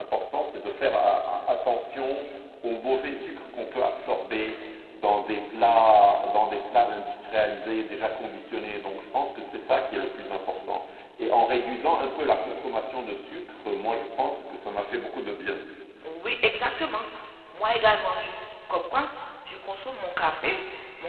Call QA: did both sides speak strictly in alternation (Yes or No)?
Yes